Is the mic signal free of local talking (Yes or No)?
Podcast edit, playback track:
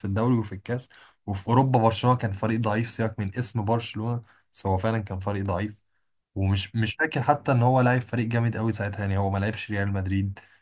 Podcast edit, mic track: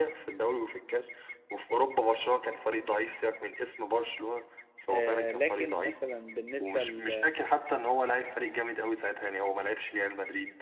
No